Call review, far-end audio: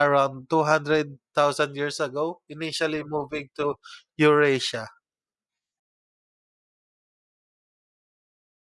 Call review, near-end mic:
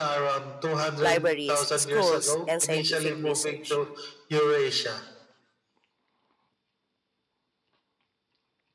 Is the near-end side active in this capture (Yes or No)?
Yes